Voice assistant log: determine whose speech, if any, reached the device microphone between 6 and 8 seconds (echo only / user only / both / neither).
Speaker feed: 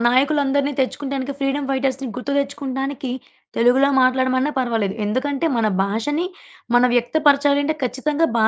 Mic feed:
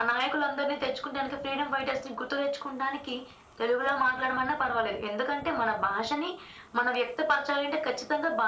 echo only